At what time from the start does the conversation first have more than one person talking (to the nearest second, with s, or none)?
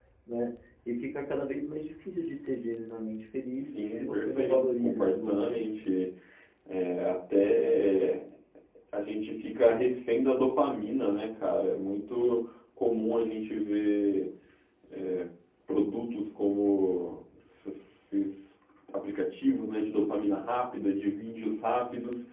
4 s